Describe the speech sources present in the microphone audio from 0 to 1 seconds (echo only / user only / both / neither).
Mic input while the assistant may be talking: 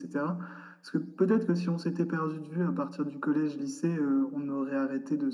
echo only